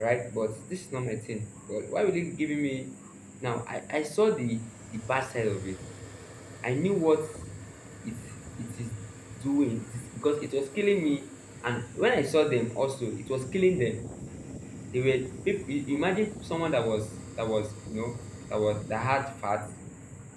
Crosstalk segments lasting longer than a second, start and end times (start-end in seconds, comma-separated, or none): none